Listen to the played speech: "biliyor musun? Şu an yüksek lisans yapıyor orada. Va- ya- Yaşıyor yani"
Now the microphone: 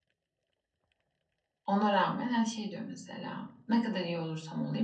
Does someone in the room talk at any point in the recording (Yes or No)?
Yes